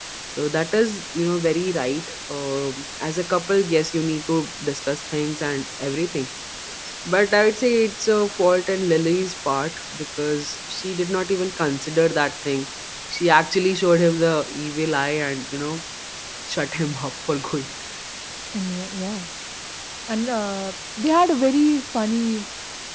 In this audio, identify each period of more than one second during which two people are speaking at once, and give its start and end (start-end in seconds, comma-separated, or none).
none